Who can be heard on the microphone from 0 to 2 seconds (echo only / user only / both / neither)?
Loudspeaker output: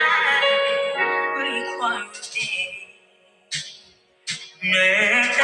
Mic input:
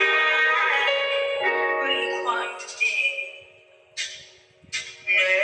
echo only